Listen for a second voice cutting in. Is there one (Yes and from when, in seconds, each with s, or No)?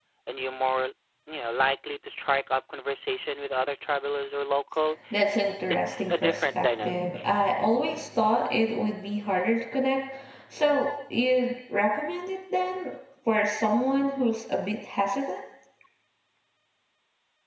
Yes, from 5.9 s